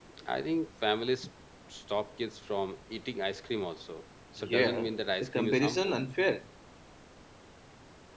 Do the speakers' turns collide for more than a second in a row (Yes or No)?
Yes